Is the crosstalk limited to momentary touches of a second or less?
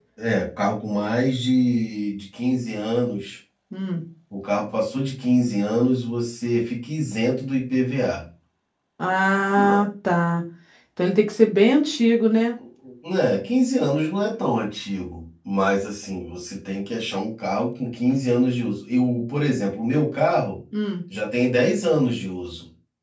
Yes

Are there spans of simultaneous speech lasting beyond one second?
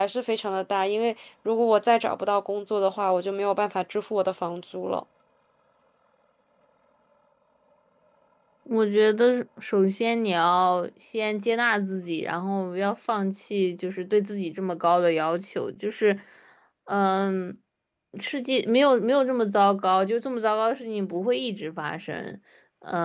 No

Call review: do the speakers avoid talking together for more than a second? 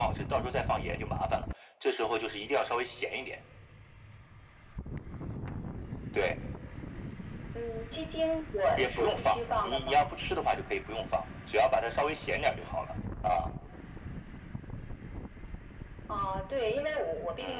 No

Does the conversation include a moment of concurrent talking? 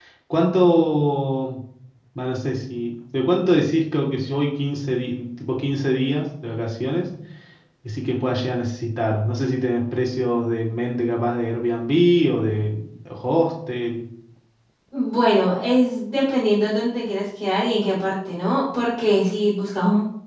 No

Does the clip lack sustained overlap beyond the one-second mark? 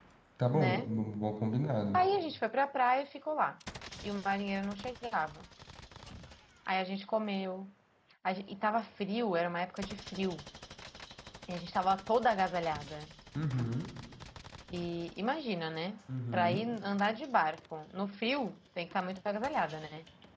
Yes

